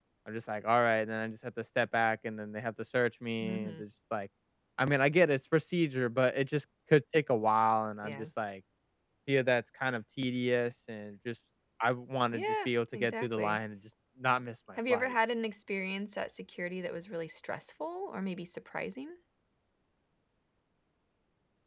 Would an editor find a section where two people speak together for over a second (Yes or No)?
Yes